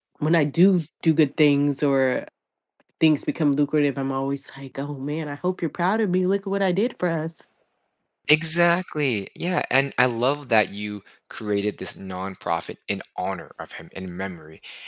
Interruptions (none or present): none